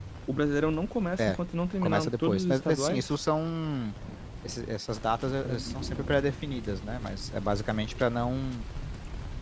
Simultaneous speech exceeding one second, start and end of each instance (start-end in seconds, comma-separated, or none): 1.8-3.1